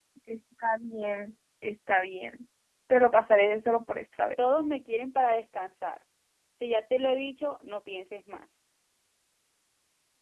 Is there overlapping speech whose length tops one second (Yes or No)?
No